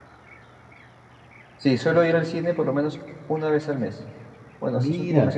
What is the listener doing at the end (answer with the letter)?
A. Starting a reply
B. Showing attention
B